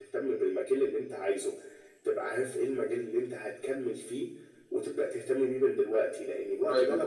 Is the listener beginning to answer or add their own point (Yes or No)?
No